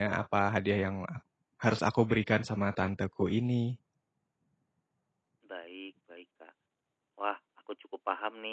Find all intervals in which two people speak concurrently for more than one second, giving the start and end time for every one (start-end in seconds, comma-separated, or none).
none